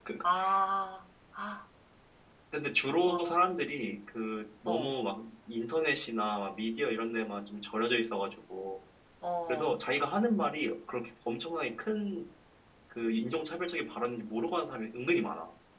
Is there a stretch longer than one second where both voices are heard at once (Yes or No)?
No